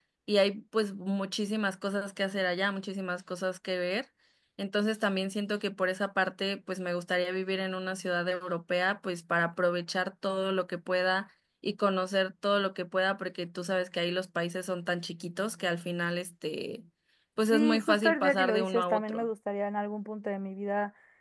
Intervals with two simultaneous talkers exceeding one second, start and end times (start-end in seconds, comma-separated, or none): 17.5-19.3